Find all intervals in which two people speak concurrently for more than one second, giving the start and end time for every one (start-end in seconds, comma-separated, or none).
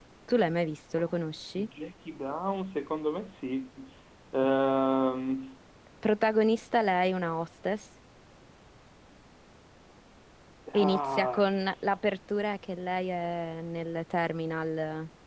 10.8-12.0